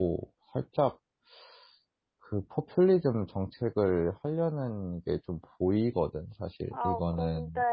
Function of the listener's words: taking over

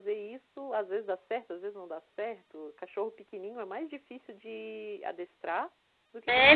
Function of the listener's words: taking over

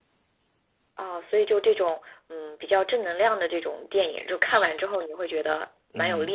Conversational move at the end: taking over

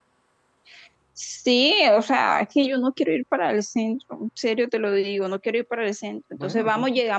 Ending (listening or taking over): listening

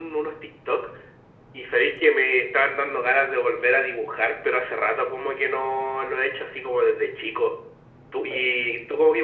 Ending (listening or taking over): listening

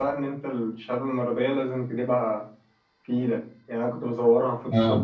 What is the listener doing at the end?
listening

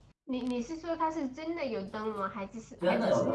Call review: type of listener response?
taking over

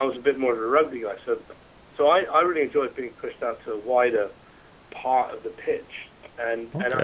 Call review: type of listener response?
taking over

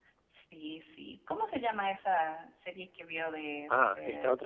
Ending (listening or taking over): taking over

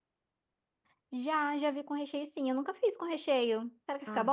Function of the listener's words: taking over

